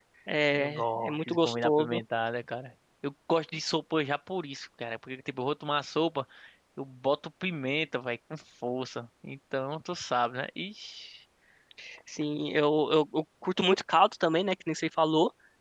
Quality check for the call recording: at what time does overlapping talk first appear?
1 s

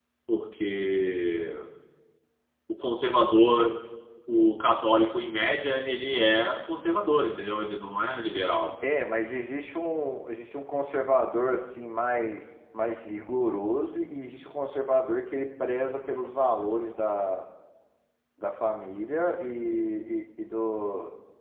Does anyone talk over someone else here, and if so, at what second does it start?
none

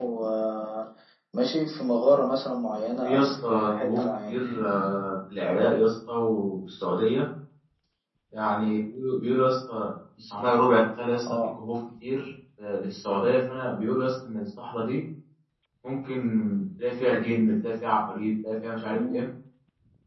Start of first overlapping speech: 3 s

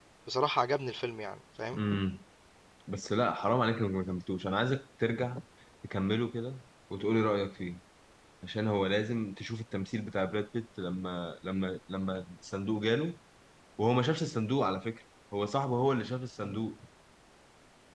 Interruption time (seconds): none

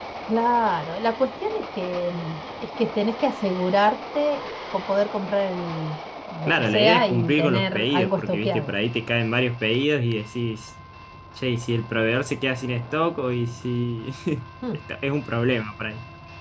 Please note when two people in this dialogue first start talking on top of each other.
6 s

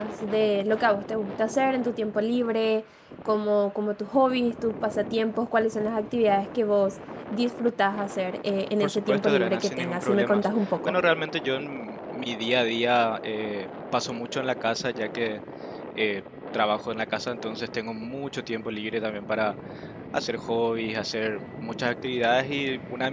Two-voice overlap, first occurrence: 9 s

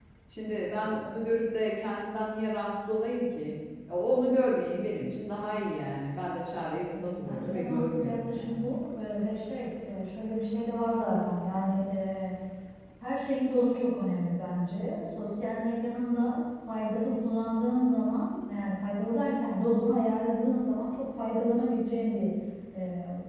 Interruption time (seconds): 7 s

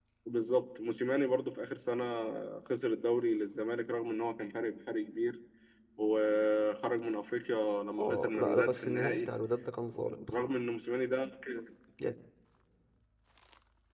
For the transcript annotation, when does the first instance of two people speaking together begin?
8 s

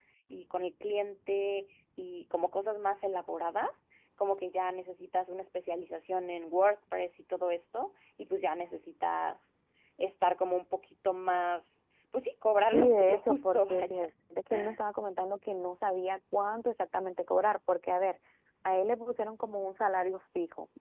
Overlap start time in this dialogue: 13 s

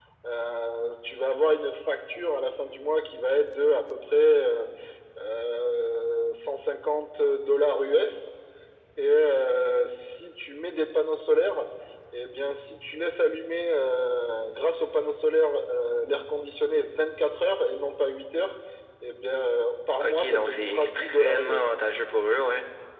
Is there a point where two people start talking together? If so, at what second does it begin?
20 s

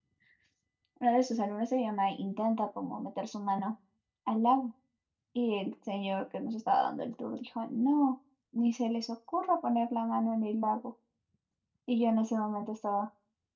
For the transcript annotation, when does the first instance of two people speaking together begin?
none

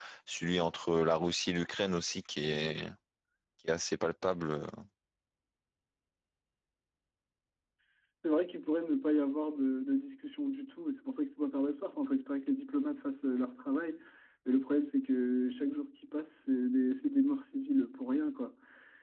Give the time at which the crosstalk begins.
none

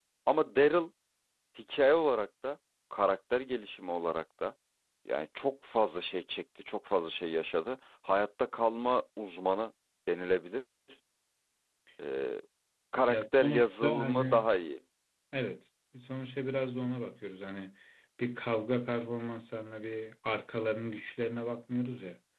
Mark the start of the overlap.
13 s

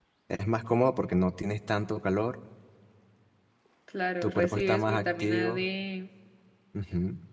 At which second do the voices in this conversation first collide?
4 s

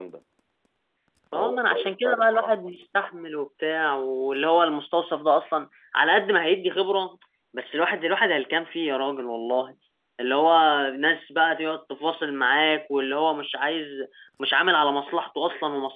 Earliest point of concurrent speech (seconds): 1 s

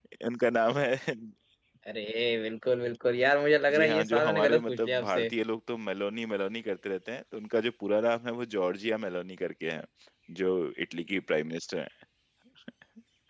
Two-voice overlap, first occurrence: 4 s

